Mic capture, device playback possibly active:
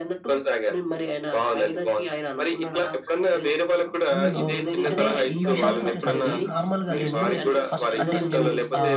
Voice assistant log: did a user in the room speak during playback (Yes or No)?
Yes